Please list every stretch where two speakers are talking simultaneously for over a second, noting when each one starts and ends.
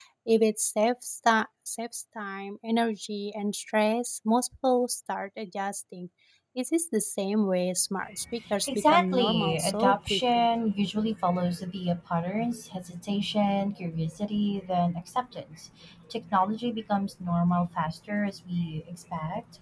8.7-10.5

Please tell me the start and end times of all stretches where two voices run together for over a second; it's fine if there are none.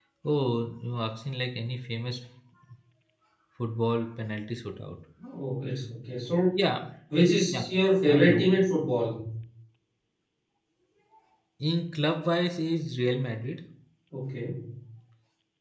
none

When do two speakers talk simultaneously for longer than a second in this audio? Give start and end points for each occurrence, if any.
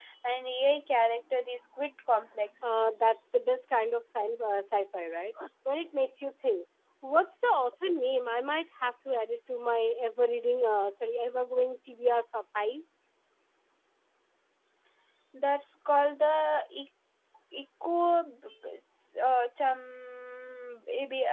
none

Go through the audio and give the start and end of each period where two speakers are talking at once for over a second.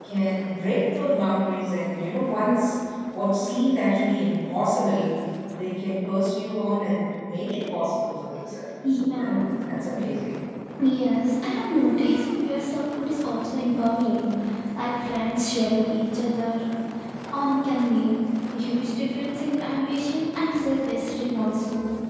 none

